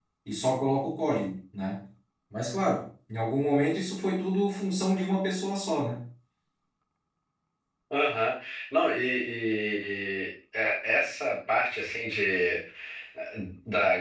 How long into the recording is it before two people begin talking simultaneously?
none

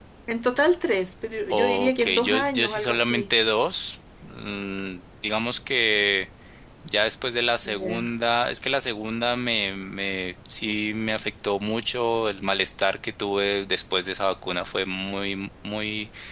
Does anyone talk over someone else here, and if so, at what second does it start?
1.5 s

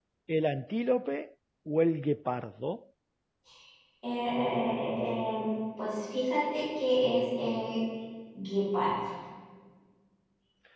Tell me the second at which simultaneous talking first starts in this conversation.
none

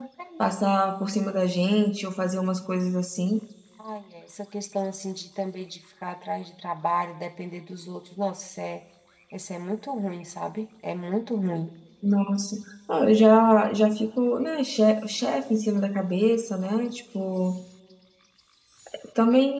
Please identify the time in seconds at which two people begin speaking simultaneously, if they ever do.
none

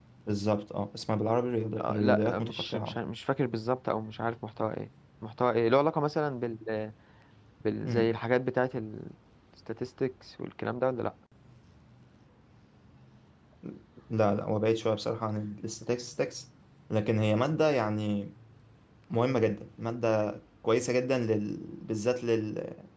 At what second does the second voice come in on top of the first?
1.8 s

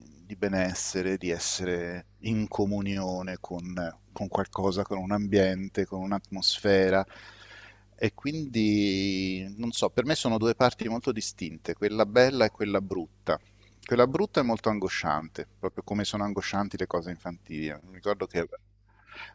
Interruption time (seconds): none

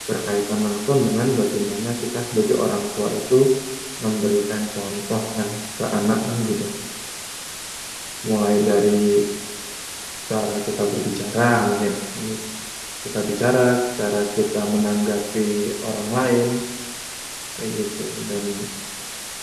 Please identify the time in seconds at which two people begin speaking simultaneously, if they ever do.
none

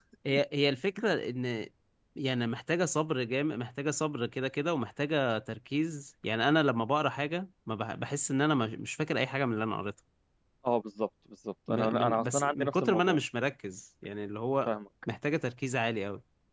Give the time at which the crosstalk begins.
11.7 s

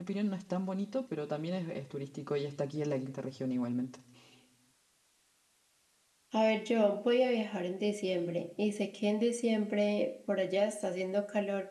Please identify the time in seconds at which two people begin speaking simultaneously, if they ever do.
none

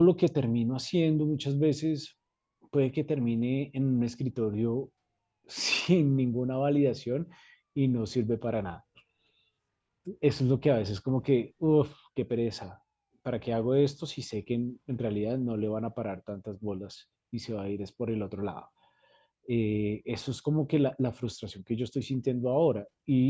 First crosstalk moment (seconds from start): none

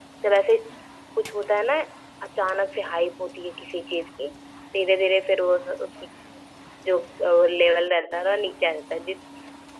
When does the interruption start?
none

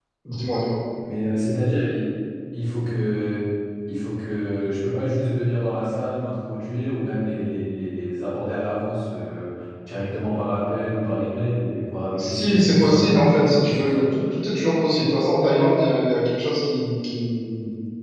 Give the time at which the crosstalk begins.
12.2 s

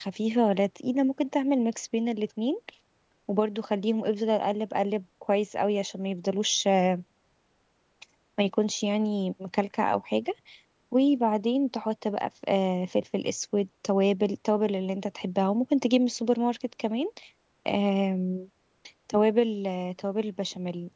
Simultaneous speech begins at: none

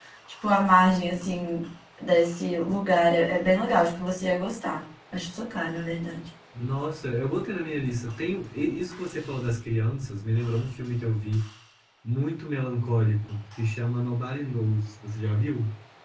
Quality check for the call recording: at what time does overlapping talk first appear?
none

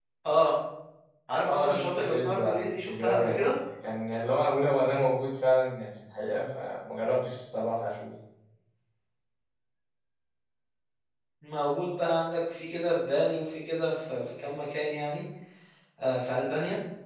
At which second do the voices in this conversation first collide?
1.5 s

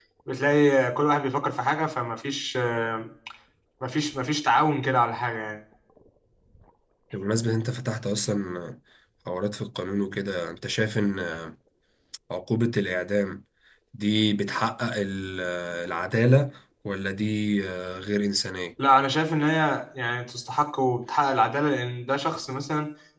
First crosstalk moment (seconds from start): none

